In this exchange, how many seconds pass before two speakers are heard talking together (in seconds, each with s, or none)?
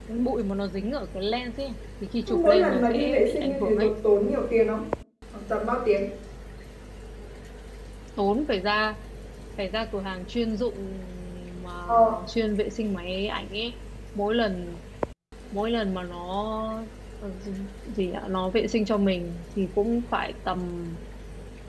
2.3 s